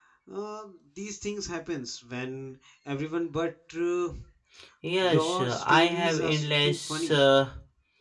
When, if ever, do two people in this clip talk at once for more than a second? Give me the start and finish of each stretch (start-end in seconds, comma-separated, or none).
5.0-7.2